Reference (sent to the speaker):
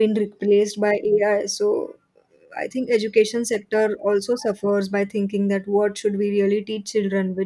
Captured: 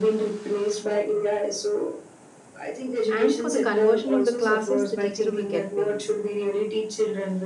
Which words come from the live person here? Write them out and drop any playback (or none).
and for the conversion of the classes, the teacher will get paid.